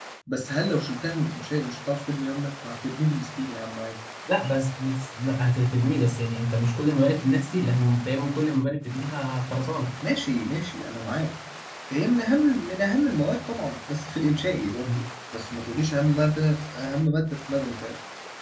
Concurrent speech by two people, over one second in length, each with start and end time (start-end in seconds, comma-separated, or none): none